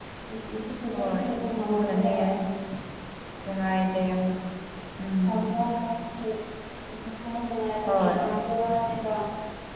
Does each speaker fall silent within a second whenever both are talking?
No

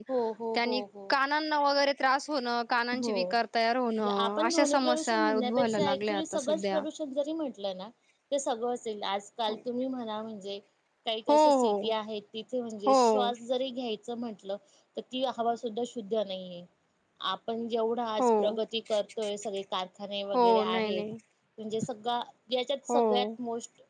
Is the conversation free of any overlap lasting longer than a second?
No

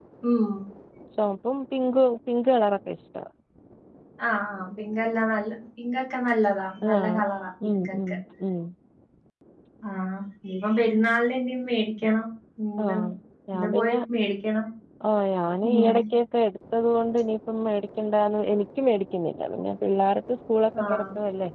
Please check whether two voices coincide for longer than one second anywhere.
No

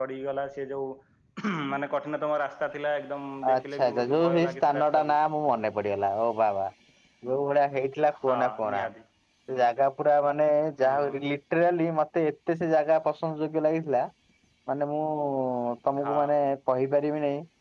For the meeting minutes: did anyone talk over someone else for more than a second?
Yes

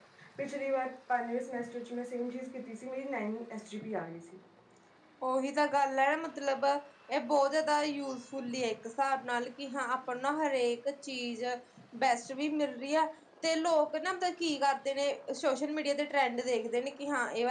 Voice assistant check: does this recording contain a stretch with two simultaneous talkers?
No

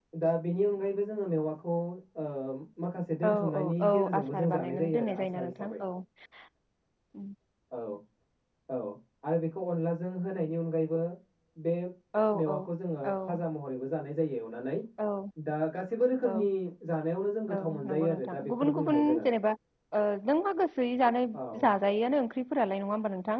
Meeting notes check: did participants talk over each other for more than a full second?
Yes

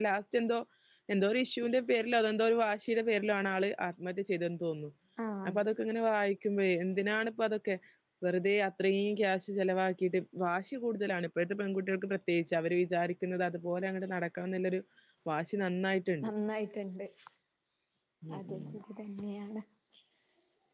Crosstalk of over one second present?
No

